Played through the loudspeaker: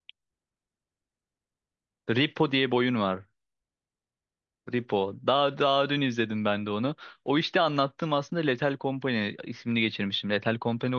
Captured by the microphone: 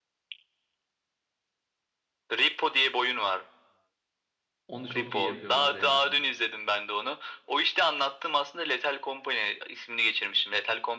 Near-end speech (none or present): present